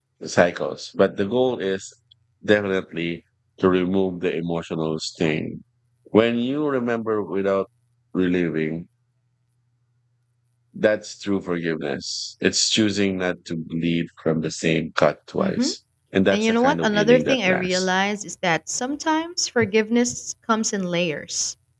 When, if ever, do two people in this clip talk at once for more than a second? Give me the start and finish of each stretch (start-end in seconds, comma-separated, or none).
16.3-17.9